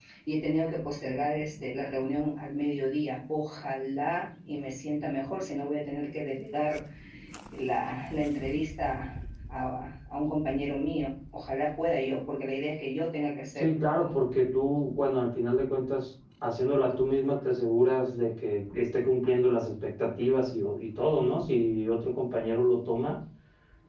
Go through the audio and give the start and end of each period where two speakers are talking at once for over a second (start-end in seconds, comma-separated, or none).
none